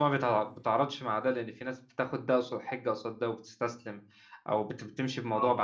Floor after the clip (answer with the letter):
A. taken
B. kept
B